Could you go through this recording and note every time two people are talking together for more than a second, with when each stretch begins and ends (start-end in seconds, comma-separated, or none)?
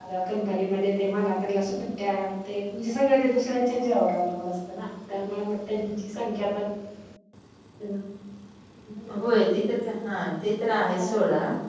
none